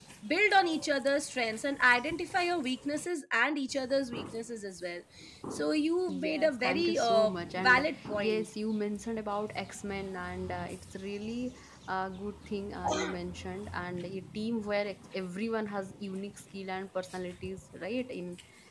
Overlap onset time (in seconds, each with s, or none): 6.1 s